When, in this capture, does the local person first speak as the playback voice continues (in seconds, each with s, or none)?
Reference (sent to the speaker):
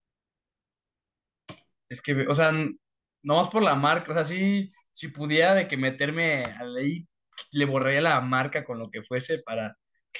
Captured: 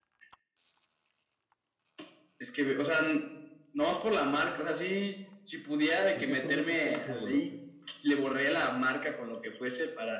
6.1 s